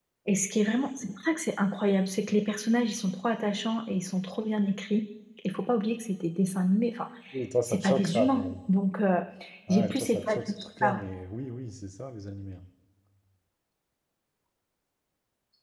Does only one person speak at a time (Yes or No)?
No